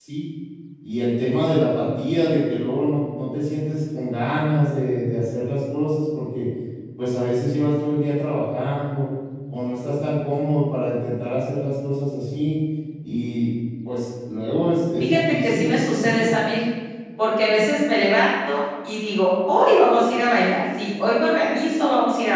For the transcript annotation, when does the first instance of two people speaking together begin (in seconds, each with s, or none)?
15.0 s